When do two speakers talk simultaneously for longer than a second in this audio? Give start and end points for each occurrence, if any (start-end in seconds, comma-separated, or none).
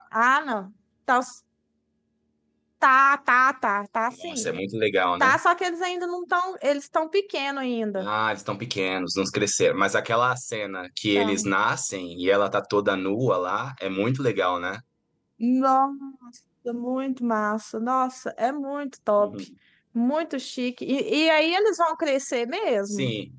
none